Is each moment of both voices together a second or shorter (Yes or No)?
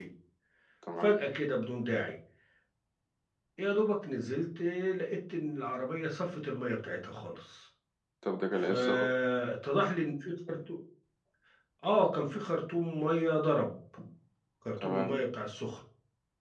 Yes